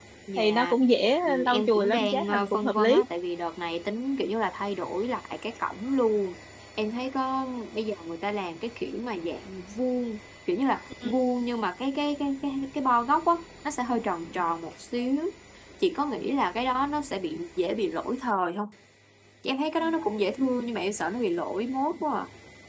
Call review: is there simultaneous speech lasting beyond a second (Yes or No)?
Yes